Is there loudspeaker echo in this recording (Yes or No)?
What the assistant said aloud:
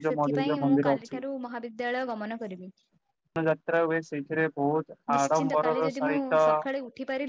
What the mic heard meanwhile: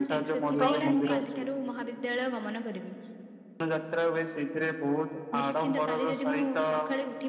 Yes